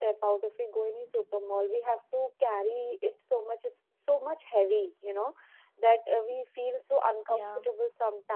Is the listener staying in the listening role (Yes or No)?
Yes